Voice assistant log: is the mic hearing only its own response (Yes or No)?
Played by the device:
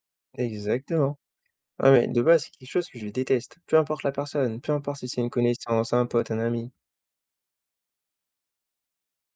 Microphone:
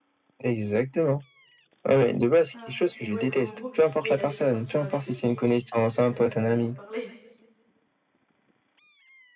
No